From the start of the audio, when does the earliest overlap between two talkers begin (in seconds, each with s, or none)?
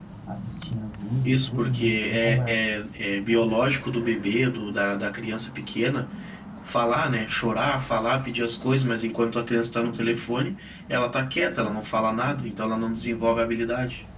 1.2 s